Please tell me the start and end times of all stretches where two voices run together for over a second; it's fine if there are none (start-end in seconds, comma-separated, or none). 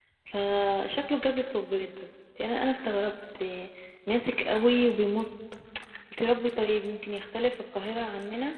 none